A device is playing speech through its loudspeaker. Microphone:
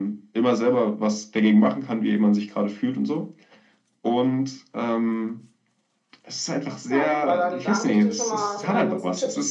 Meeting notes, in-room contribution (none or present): present